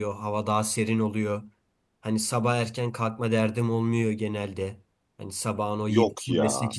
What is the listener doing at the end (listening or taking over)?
listening